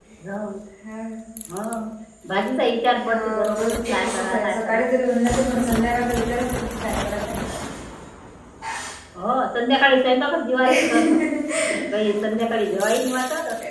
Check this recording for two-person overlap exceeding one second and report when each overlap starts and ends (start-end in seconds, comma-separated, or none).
3.0-4.8